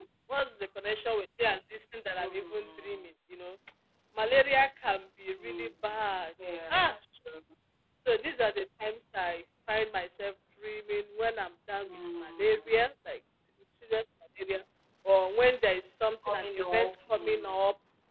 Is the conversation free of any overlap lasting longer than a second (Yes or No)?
No